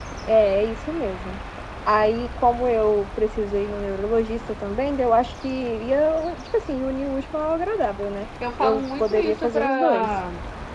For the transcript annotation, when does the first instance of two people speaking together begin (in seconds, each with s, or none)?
8.4 s